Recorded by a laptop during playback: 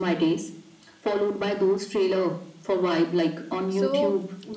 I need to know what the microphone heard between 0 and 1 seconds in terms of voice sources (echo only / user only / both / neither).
echo only